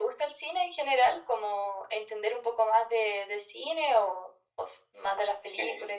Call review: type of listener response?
taking over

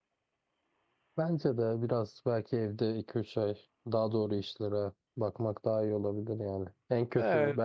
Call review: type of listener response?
listening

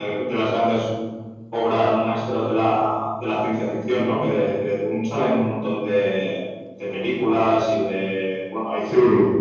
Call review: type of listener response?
listening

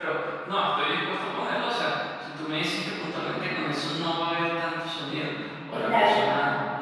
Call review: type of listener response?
listening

